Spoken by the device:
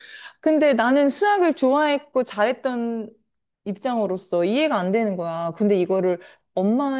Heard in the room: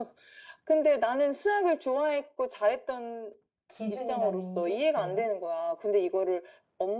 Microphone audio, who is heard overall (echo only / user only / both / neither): both